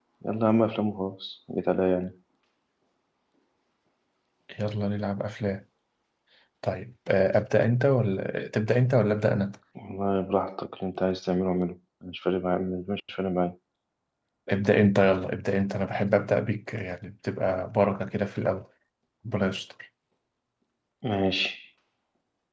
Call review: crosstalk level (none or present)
none